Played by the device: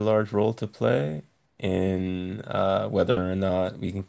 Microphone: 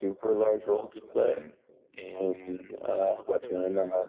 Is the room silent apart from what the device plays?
Yes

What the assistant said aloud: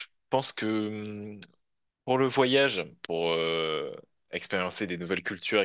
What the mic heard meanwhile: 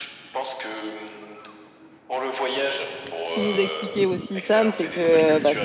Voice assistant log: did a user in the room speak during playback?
Yes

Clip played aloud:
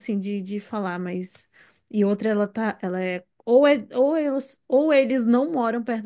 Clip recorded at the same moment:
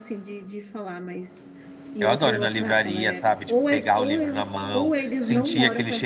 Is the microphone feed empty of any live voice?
No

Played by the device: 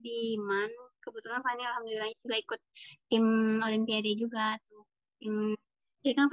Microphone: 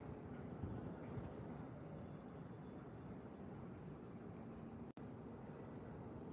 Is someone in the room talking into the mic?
No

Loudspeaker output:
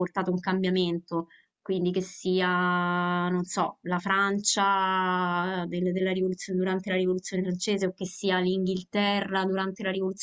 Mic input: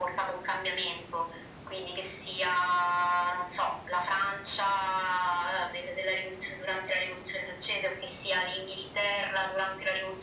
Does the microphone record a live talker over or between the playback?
No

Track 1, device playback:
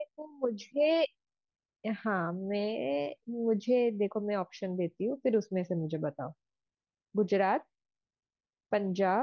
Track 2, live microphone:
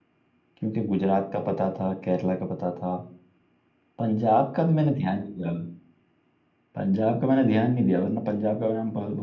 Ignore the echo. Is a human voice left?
Yes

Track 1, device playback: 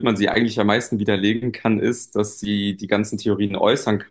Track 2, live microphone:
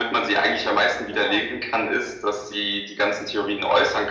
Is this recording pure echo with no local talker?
No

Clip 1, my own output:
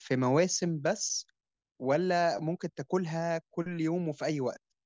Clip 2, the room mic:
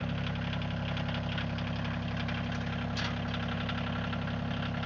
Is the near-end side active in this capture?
No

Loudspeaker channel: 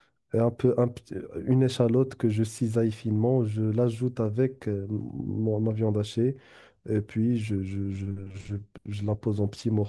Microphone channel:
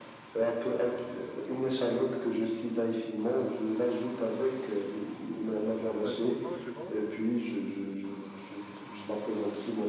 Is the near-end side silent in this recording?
No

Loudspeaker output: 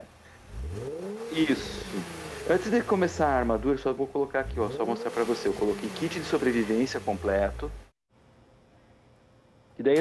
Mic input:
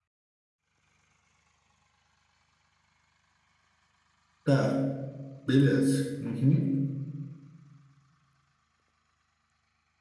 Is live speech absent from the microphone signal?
No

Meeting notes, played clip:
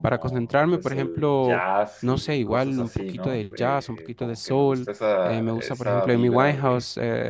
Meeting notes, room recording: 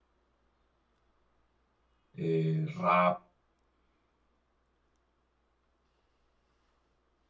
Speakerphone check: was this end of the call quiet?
No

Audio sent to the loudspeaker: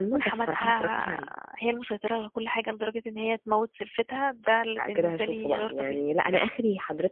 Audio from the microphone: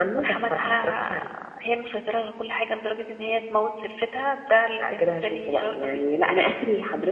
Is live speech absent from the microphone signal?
Yes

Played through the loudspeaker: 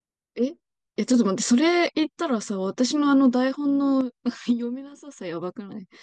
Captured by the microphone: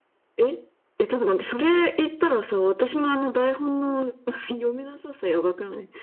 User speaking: No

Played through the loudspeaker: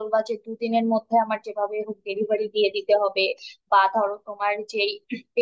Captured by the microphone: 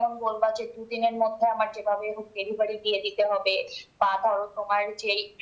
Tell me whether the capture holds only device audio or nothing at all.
Yes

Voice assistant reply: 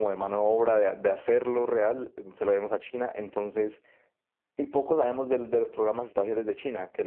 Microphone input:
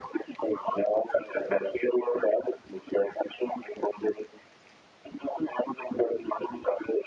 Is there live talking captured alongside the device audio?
No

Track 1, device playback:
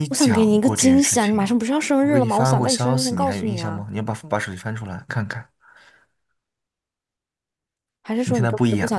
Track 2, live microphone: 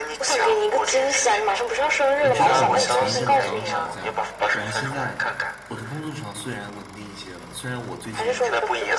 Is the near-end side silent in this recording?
No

